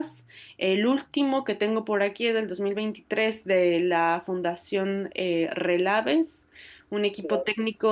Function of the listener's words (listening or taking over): listening